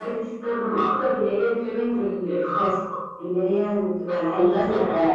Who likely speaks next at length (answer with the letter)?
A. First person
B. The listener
B